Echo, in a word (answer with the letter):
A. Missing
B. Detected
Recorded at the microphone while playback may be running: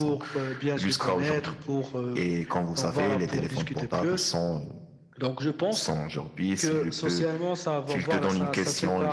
B